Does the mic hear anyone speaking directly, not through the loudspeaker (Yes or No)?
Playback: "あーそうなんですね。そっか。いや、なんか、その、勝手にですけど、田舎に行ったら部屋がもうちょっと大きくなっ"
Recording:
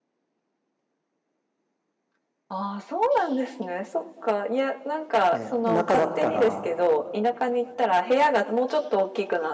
Yes